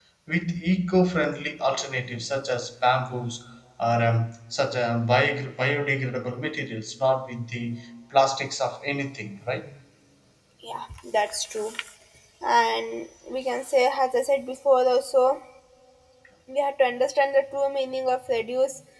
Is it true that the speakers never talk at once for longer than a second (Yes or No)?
Yes